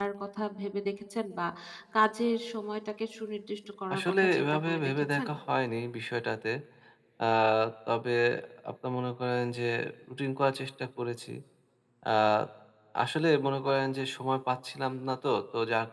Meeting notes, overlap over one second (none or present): present